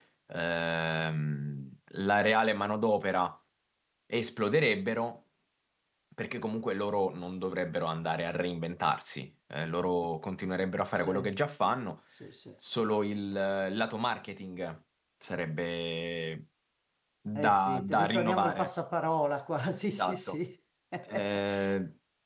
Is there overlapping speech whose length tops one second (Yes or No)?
Yes